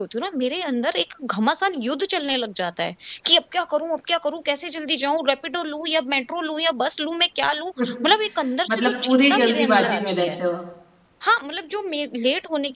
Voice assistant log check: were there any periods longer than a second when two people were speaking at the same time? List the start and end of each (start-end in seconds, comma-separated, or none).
8.7-10.3